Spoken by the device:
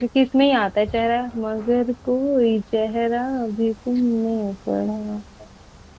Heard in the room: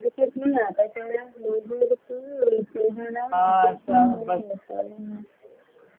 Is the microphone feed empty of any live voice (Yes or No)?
No